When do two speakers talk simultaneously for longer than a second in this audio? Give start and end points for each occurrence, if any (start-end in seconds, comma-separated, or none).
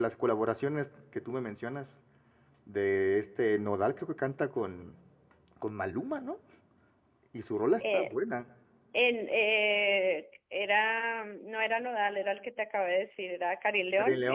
none